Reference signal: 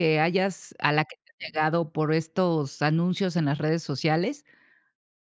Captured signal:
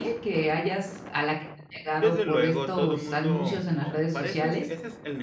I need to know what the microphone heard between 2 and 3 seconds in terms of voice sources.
both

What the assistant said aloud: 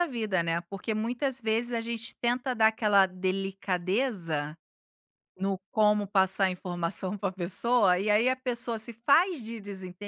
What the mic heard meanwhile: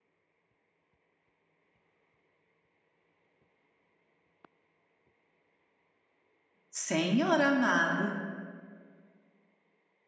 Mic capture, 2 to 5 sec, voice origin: neither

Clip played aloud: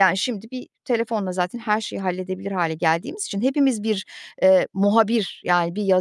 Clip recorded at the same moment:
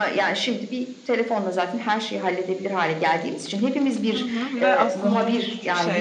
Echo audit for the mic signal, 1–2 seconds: echo only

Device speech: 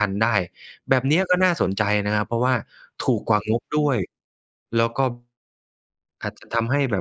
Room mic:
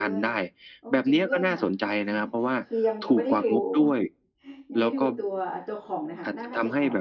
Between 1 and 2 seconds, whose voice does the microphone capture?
both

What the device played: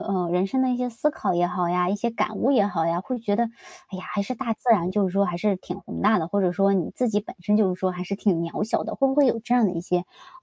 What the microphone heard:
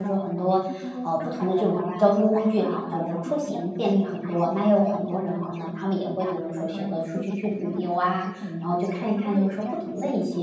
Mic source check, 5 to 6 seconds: both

